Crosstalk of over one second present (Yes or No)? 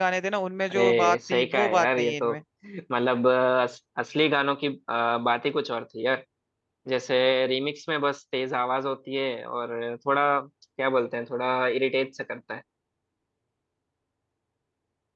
Yes